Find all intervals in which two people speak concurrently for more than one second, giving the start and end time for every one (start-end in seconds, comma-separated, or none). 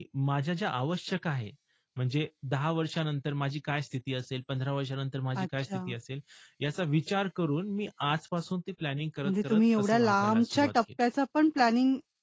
9.2-10.7